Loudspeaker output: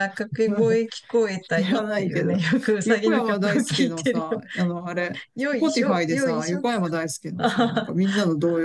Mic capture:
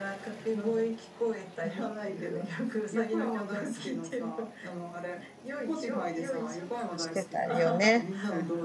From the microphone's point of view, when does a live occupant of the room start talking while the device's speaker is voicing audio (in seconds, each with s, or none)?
7.0 s